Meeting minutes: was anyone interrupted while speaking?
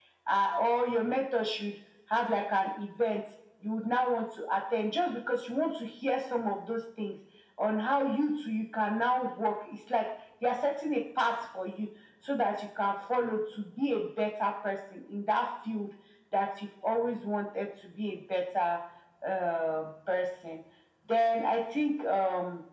No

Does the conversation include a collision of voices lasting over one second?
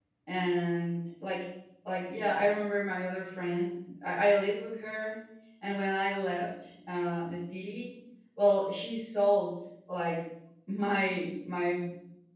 No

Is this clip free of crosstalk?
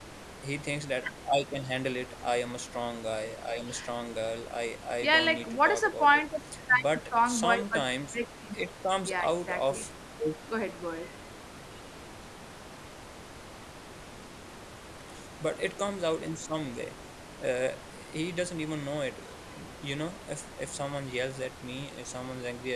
No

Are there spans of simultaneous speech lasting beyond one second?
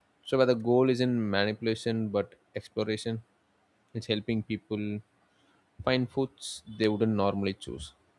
No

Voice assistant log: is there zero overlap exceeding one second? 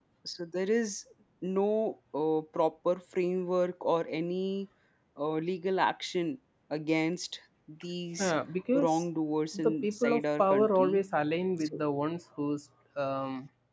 No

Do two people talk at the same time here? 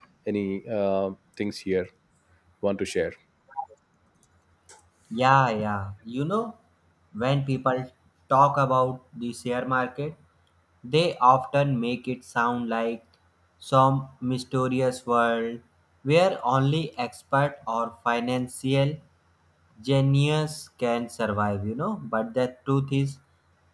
No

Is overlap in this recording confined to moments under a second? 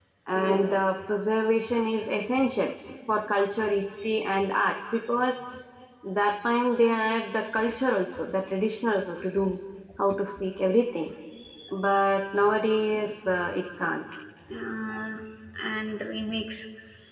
Yes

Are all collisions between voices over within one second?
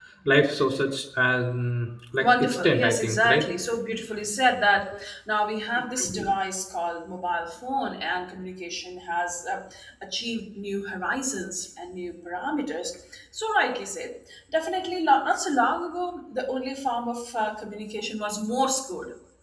No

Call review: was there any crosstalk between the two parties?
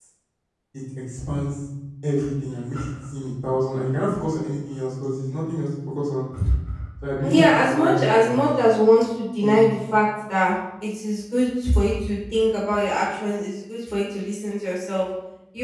Yes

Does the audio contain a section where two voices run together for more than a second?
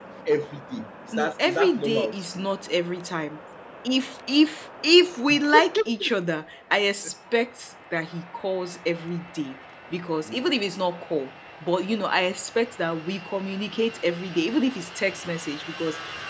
Yes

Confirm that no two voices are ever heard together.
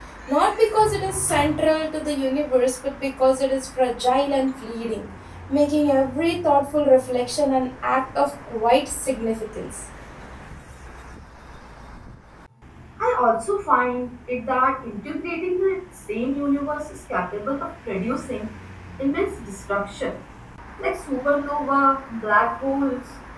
Yes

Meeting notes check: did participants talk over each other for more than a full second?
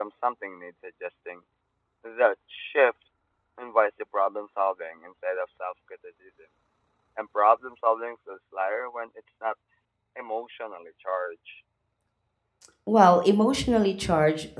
No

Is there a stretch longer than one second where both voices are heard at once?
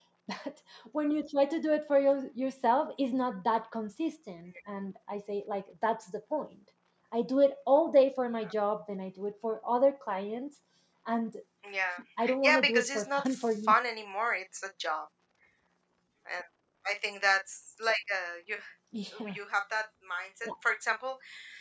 Yes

